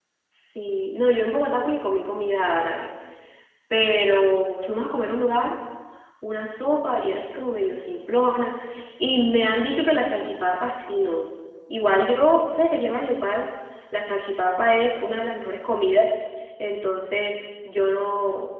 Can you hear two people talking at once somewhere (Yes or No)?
No